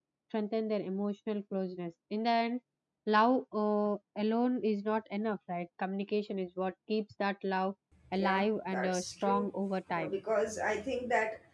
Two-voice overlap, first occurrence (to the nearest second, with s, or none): 8 s